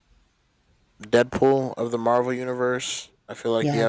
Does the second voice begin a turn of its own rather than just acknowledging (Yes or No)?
No